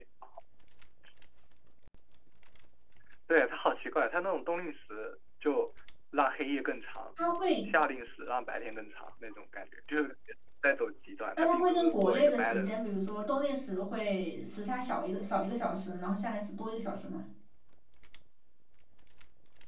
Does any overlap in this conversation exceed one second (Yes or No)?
Yes